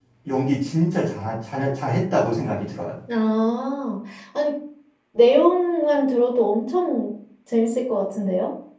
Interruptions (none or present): none